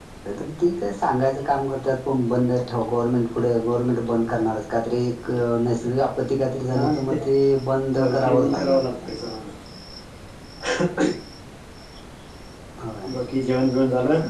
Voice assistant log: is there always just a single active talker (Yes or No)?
No